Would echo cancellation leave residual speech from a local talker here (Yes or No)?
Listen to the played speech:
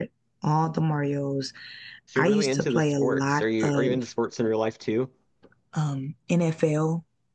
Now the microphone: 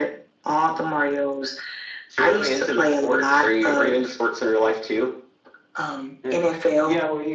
Yes